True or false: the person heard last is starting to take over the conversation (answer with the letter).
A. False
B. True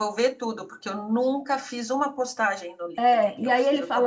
B